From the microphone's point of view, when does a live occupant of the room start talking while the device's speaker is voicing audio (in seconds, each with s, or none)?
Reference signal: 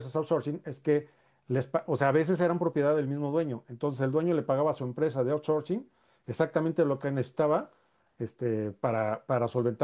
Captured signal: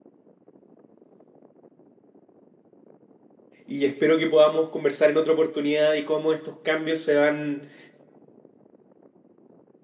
3.7 s